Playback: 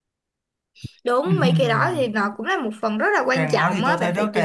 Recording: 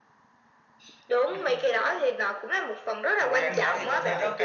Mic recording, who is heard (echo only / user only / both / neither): both